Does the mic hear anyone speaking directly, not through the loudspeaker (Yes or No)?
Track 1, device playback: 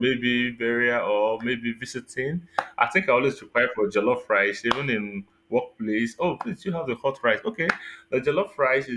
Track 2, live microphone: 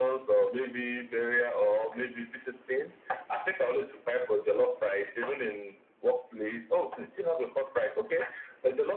No